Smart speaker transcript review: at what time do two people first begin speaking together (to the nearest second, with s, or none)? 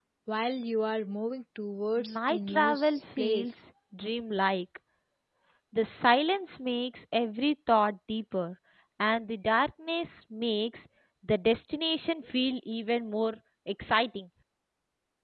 2 s